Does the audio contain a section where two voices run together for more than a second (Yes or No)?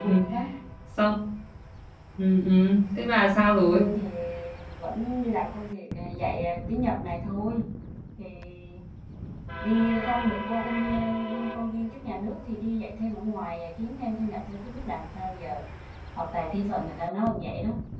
No